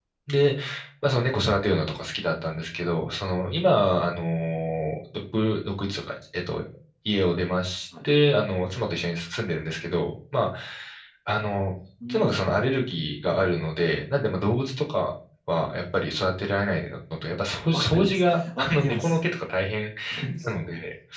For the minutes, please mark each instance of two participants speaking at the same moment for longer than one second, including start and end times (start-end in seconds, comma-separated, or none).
17.7-19.2